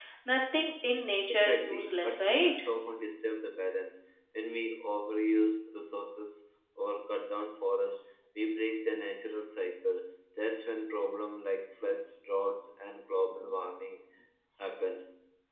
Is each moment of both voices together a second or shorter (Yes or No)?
No